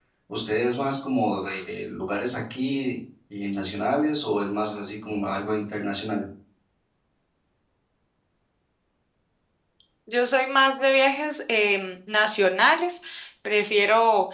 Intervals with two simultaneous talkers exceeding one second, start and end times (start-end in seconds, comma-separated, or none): none